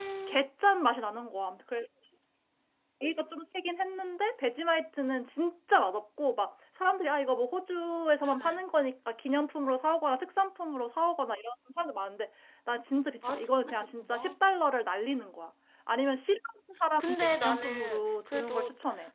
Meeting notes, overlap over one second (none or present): present